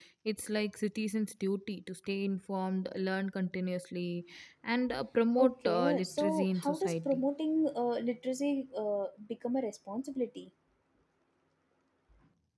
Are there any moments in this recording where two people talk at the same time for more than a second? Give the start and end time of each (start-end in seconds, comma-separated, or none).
5.4-7.2